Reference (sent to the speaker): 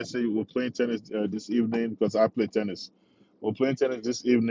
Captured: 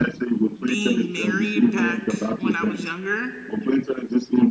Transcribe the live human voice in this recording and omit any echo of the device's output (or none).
being married back when I was younger,